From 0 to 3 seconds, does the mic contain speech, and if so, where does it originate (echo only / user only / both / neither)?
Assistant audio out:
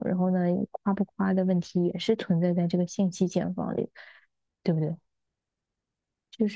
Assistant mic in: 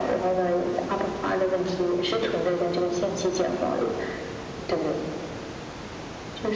echo only